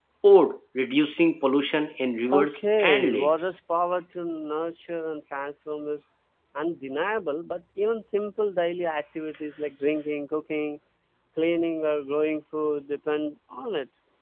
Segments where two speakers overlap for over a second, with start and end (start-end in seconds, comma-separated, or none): 2.3-3.5